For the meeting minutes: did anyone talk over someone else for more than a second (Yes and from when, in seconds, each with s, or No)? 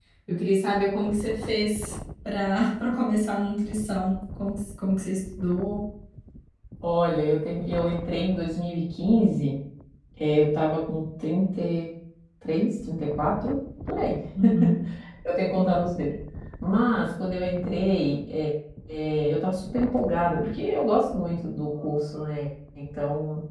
No